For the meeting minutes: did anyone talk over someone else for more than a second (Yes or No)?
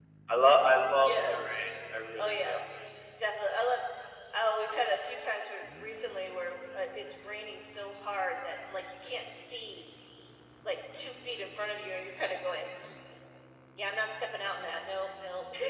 No